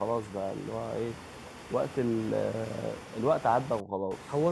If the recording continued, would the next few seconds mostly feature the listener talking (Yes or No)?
Yes